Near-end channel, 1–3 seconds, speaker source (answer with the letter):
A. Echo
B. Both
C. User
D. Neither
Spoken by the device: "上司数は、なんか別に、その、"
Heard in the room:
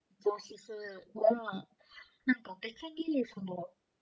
A